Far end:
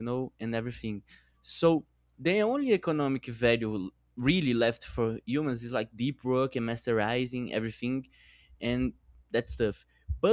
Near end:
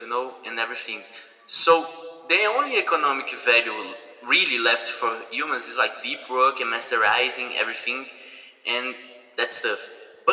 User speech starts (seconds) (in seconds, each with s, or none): none